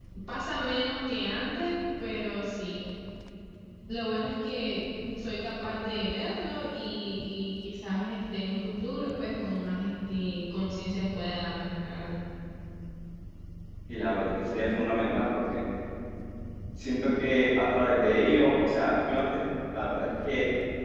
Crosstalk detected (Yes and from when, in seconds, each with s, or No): No